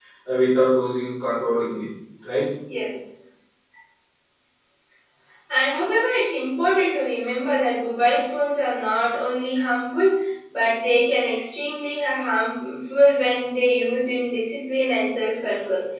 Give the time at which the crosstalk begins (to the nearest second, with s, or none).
none